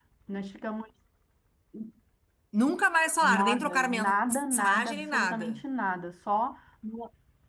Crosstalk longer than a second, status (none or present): present